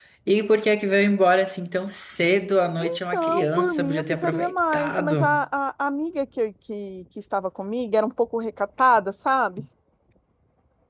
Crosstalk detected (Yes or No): Yes